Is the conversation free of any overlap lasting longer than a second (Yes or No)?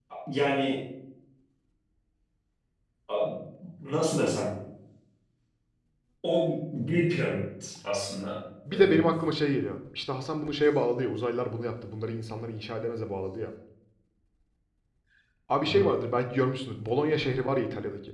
Yes